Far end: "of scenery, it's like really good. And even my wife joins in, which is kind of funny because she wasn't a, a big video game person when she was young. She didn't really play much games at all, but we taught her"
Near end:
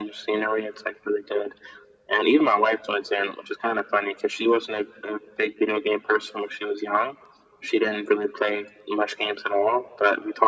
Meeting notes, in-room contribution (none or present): none